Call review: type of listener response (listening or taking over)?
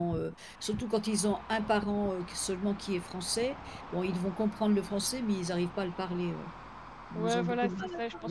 taking over